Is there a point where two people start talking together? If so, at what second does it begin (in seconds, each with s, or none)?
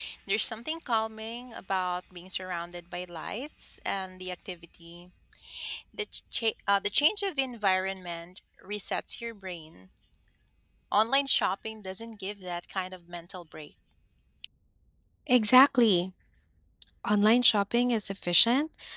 none